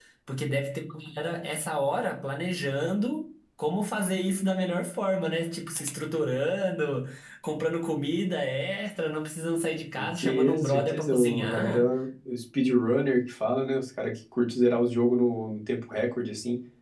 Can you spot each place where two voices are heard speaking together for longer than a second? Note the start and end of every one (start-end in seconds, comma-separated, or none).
10.0-11.8